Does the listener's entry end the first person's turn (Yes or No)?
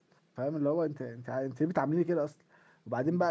No